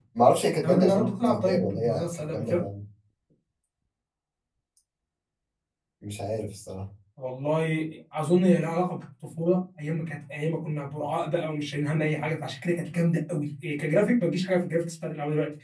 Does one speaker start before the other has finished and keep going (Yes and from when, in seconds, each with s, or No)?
Yes, from 0.6 s